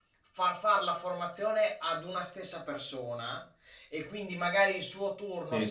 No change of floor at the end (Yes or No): Yes